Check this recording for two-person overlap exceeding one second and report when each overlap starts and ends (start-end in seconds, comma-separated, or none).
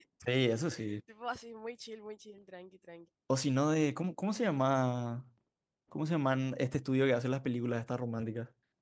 none